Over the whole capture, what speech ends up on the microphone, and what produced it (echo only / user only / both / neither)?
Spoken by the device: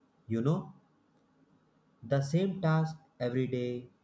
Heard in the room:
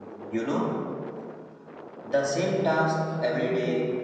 both